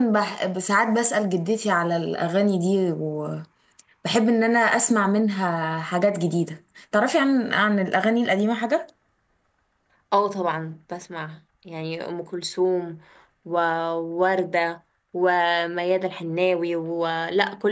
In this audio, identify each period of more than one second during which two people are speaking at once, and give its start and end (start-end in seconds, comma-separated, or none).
none